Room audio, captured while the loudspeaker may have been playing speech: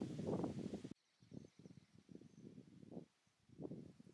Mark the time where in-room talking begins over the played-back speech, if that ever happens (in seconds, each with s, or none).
none